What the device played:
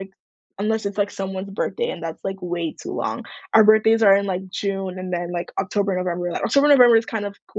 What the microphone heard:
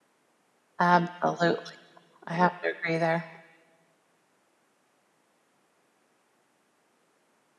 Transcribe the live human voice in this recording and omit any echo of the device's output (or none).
Absolutely. I have to agree there.